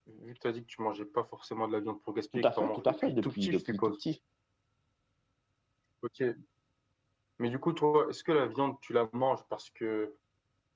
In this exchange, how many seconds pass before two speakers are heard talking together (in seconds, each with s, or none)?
2.3 s